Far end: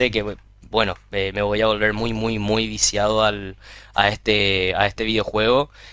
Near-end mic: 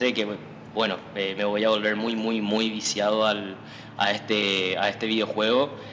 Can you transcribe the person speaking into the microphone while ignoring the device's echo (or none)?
none